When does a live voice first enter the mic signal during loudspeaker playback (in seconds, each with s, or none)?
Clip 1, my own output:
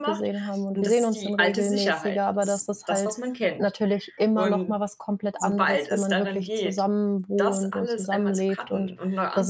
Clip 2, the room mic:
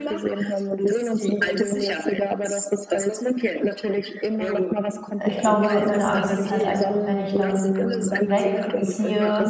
5.3 s